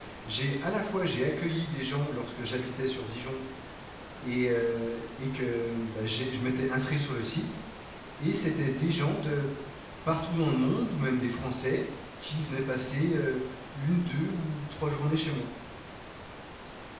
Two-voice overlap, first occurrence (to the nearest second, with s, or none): none